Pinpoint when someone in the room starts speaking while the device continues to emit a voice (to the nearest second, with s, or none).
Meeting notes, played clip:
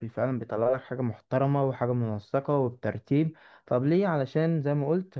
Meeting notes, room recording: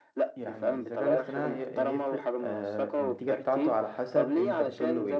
0 s